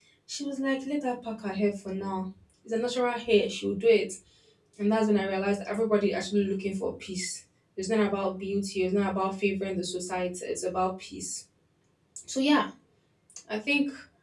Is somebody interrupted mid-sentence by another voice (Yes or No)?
No